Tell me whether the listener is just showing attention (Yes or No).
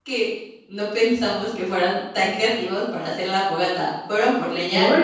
Yes